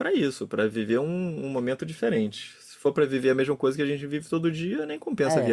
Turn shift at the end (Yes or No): Yes